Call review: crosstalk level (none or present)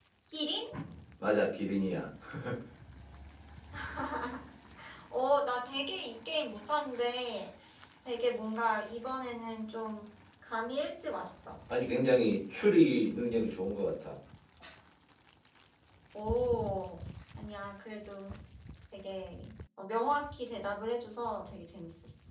none